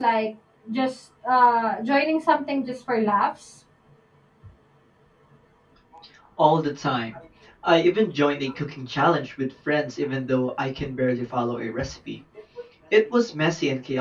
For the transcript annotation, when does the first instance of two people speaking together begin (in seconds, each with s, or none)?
none